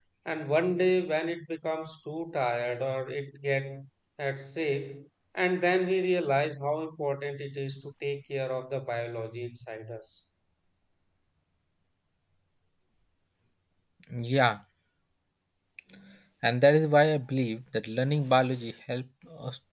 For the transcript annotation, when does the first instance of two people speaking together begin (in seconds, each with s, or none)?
none